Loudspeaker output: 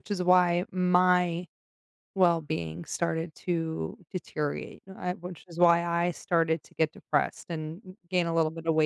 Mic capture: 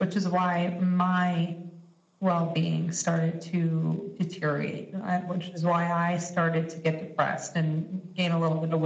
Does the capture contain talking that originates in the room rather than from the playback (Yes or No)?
No